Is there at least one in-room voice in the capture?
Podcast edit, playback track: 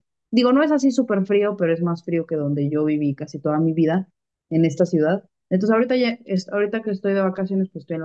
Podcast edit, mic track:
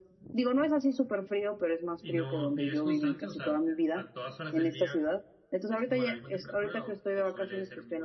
Yes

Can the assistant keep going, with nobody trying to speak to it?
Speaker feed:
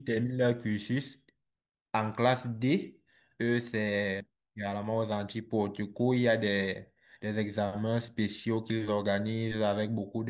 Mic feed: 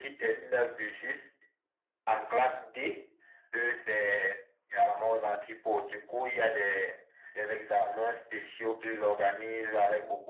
Yes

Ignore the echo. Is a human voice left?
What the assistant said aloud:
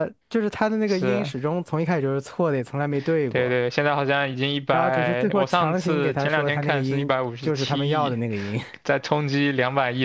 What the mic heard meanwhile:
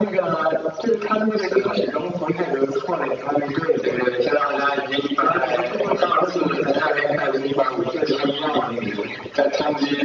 No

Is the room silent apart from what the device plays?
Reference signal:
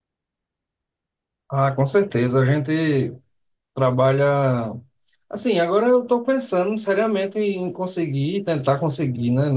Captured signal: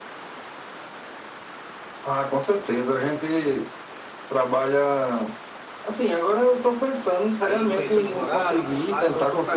No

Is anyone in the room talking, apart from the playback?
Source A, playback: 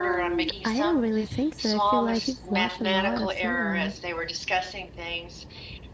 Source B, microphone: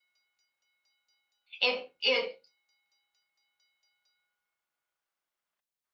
Yes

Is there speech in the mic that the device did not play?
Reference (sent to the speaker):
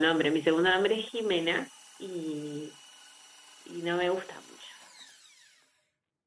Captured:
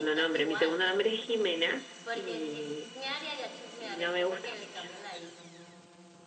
Yes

